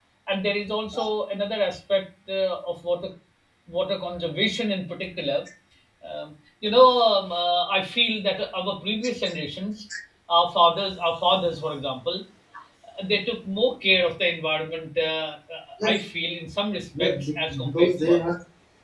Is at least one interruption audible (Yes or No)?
Yes